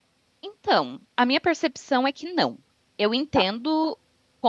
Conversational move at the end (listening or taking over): listening